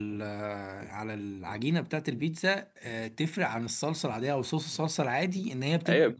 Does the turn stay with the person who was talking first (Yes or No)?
No